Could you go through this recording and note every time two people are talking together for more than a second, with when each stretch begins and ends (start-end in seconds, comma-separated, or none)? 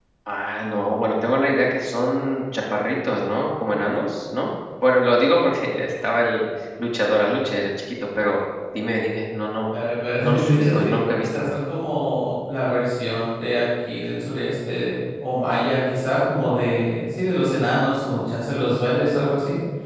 10.2-11.5